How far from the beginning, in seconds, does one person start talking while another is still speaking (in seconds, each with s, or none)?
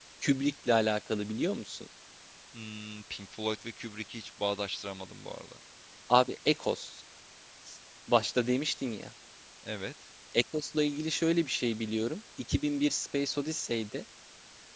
none